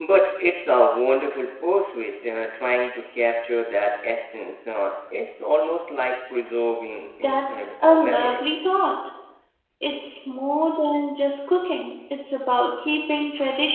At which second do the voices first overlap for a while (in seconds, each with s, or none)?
7.2 s